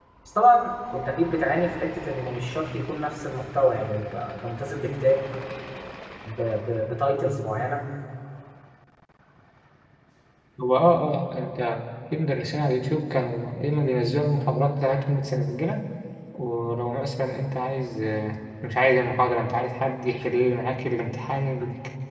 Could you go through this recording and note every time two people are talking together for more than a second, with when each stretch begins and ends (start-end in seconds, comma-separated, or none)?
none